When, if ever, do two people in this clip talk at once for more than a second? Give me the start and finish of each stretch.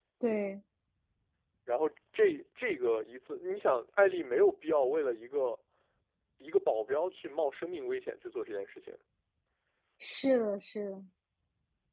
none

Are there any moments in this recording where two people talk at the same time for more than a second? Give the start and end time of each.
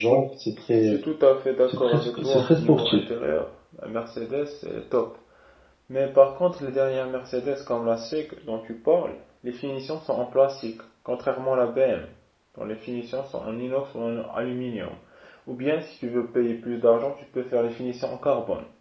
1.7-3.0

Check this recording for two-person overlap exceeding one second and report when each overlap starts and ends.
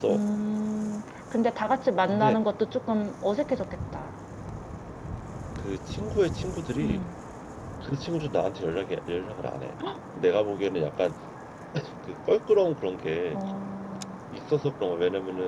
none

